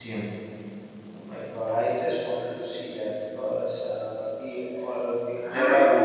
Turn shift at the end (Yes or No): Yes